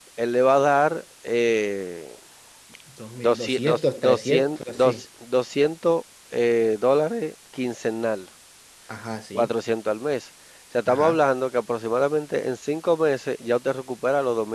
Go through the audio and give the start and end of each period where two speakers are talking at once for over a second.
3.2-5.0

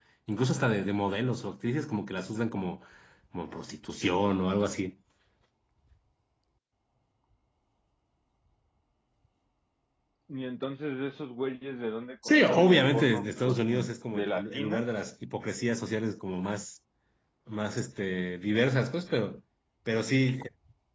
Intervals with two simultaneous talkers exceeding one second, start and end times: 12.2-14.8

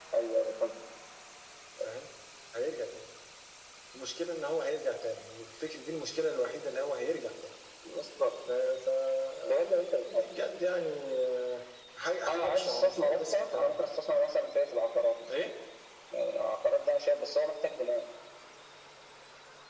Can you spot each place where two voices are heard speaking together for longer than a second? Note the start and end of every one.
12.3-13.7

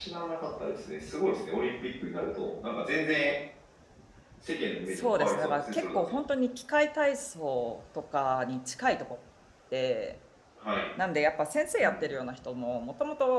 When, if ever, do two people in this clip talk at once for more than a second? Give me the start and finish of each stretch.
4.9-6.2

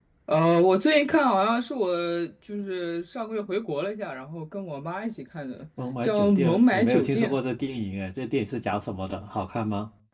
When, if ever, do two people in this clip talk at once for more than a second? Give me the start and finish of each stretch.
6.0-7.3

